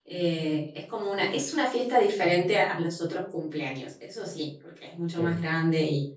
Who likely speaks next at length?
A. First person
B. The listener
A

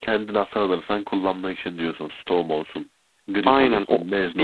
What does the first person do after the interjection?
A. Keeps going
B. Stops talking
B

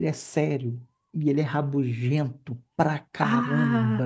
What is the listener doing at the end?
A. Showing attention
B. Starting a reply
A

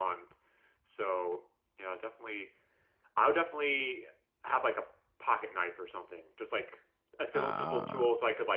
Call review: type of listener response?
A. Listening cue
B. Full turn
A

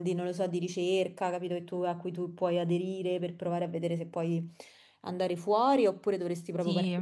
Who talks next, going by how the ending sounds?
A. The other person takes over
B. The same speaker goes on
B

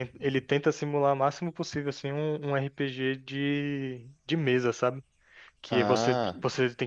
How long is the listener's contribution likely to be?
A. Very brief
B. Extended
A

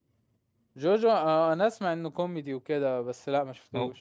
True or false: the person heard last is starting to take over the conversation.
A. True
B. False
A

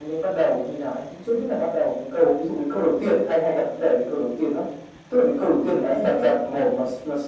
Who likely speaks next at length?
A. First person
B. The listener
A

